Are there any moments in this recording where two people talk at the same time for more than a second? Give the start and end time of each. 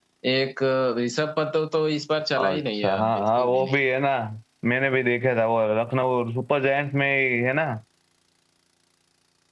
2.4-3.8

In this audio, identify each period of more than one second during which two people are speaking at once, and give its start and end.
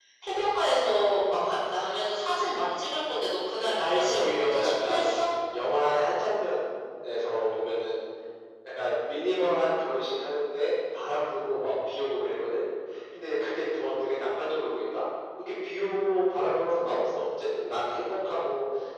3.9-5.1

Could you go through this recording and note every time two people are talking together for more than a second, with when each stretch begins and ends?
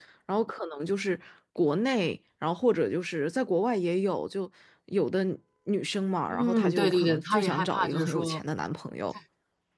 6.3-8.4

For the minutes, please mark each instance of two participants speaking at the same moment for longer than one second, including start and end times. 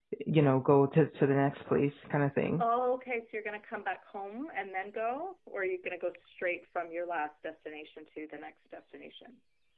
none

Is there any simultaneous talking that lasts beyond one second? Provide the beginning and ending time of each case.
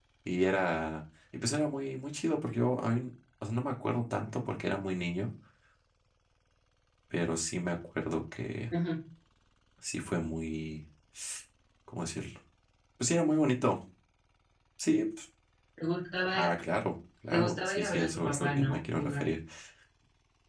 17.3-19.2

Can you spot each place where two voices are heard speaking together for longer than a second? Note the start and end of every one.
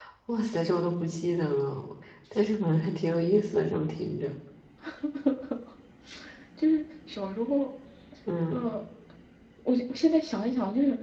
none

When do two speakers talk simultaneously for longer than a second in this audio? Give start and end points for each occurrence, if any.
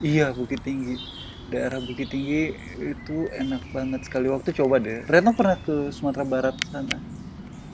none

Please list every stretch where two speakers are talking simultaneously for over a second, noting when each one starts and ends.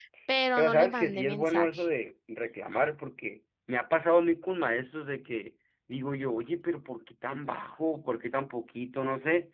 0.6-1.9

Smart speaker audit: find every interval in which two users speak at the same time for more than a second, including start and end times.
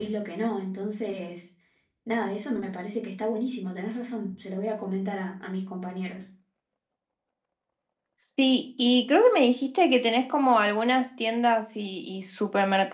none

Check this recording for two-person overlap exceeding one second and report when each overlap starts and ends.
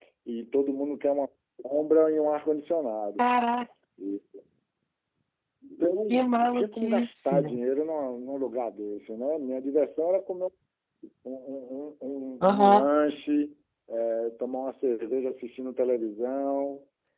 6.1-7.4

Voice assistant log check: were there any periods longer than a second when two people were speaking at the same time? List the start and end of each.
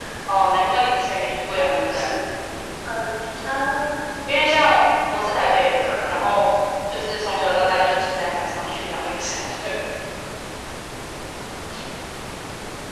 none

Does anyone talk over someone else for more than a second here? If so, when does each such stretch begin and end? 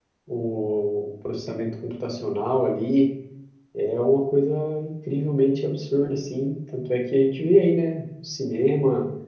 none

